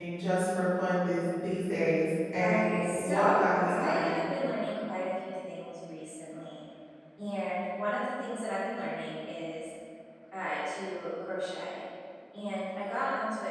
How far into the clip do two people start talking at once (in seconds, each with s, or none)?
2.4 s